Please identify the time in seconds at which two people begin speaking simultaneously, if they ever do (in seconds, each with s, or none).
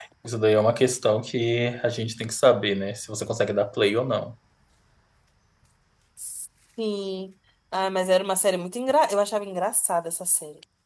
none